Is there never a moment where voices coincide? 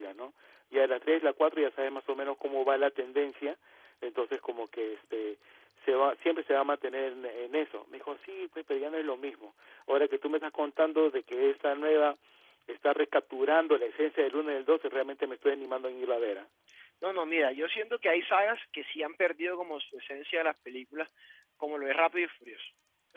Yes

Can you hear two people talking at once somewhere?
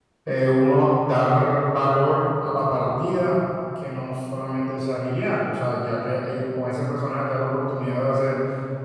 No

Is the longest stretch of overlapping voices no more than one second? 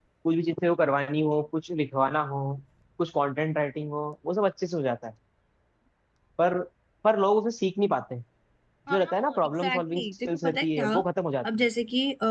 No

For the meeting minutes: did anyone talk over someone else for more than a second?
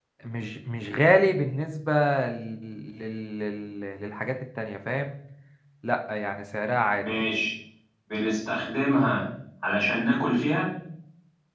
No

